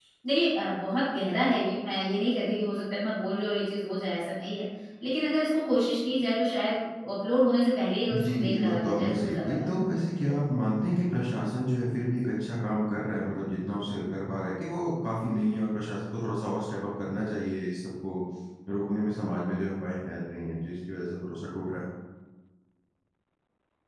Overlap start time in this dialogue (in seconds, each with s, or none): 8.1 s